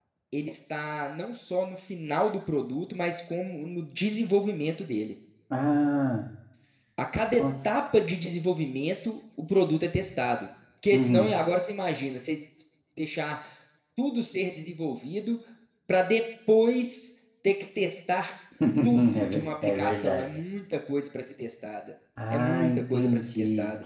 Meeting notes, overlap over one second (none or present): present